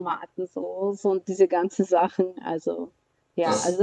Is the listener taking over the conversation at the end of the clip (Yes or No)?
Yes